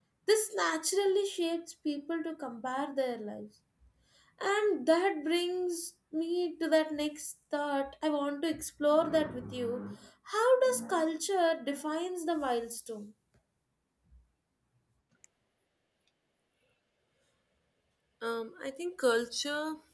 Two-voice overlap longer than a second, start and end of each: none

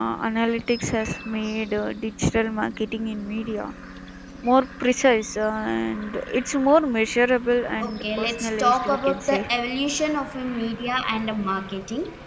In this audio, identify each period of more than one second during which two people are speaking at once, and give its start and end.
7.8-9.5

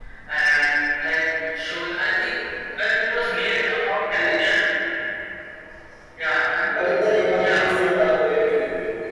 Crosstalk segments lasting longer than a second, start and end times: none

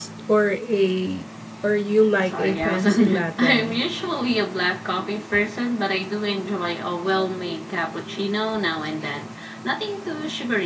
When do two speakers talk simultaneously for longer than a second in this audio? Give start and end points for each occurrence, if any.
2.2-3.8

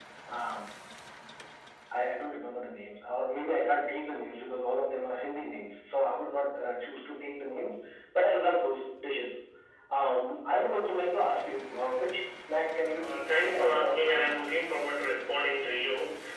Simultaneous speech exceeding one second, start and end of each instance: 13.0-14.5

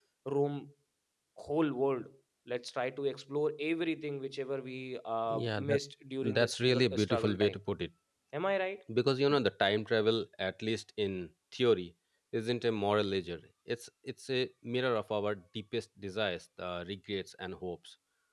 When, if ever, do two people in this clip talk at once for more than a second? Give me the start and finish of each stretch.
6.3-7.5

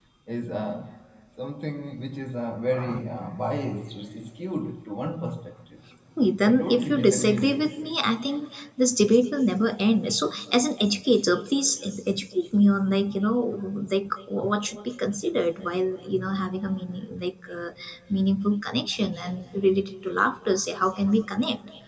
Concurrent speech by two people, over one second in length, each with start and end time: 6.4-7.7

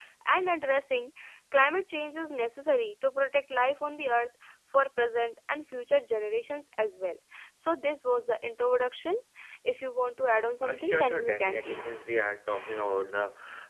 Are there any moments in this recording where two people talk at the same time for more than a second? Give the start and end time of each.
10.6-12.0

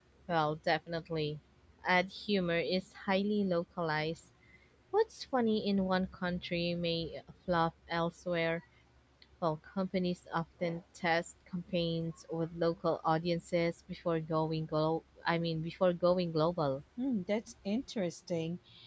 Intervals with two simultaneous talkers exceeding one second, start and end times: none

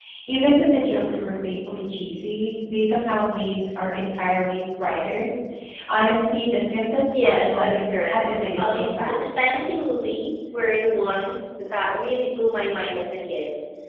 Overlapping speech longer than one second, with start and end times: 7.1-9.2

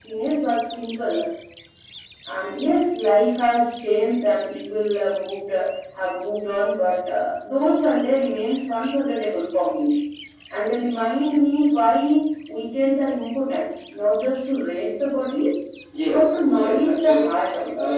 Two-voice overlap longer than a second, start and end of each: 16.1-17.3

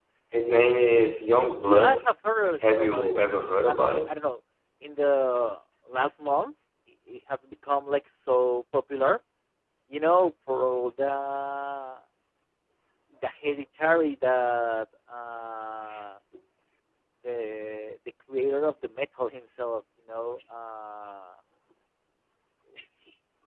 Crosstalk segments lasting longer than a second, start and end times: 2.7-4.1

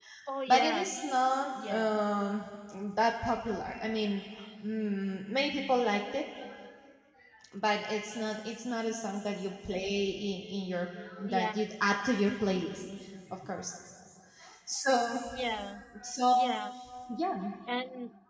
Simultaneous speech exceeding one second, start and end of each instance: none

